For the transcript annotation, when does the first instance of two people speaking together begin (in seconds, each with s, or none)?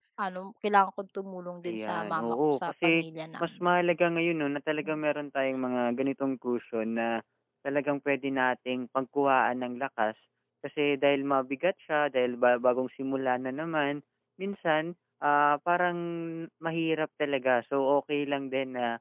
1.6 s